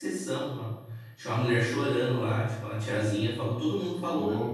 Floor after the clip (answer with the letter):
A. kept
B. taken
A